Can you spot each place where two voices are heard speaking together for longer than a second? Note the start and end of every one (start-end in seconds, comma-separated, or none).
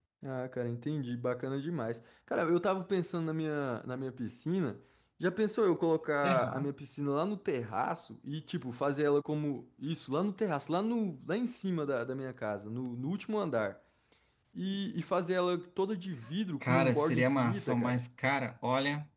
16.6-18.0